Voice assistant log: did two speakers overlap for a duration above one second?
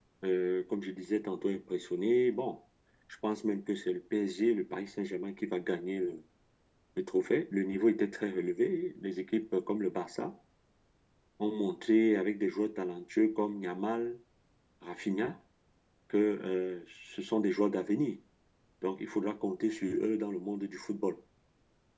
No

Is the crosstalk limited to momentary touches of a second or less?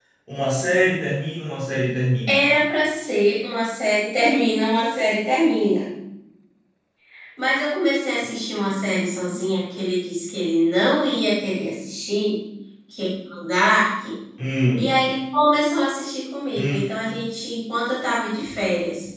Yes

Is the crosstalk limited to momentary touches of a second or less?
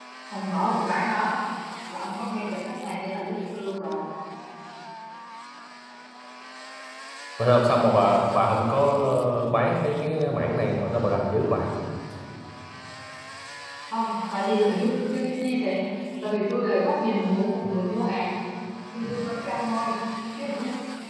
Yes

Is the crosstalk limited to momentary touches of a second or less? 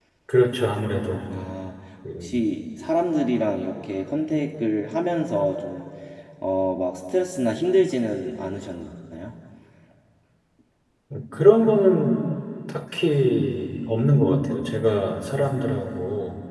Yes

